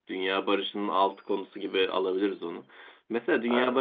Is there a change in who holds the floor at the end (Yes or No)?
No